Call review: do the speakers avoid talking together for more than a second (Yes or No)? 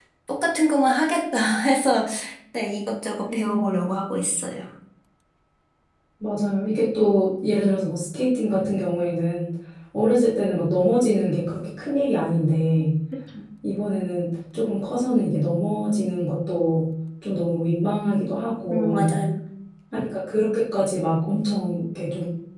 Yes